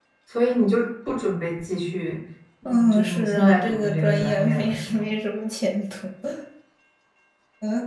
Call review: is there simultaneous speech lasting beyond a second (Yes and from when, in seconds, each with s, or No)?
Yes, from 2.7 s